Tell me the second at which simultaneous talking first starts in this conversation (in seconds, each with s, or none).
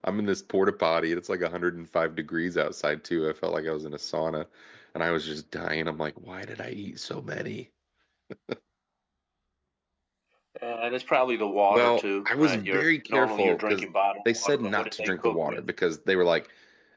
11.7 s